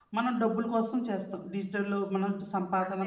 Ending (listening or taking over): taking over